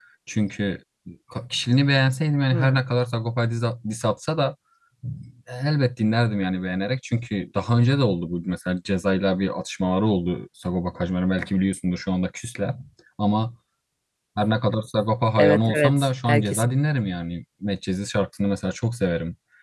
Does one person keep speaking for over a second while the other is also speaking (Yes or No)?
Yes